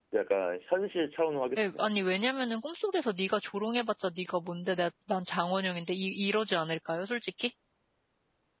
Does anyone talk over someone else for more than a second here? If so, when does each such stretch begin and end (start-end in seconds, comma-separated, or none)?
none